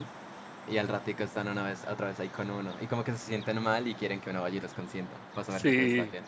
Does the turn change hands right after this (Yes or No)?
Yes